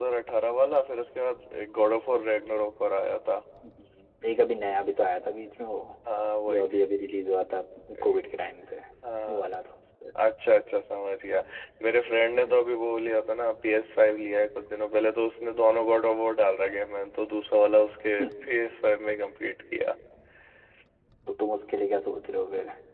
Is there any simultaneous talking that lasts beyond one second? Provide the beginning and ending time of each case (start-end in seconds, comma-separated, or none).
none